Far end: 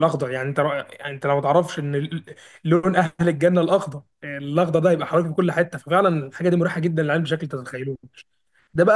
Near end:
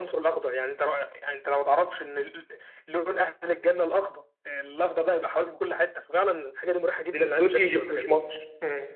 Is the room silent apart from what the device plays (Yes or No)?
No